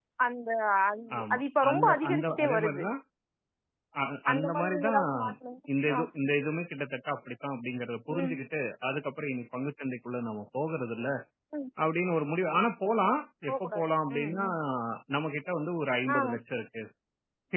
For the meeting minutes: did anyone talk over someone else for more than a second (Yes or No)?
Yes